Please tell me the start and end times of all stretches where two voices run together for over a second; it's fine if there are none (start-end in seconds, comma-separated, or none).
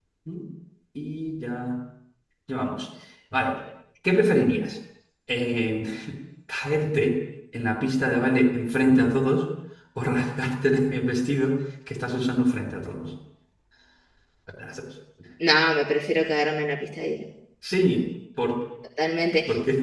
none